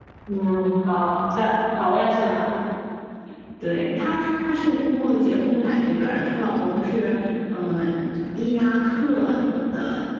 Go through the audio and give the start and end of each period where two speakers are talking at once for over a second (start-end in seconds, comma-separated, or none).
none